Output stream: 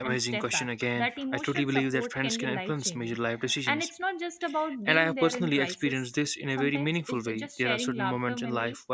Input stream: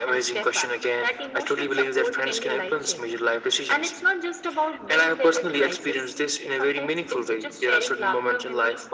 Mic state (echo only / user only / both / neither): echo only